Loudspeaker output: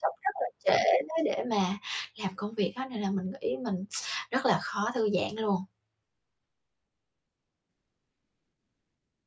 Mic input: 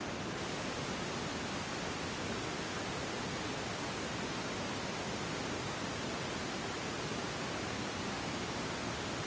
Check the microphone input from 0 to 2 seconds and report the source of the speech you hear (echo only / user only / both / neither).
neither